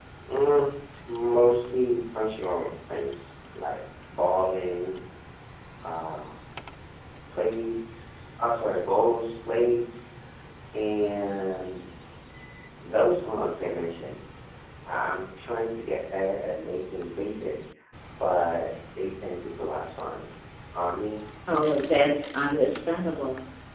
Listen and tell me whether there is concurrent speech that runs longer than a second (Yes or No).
No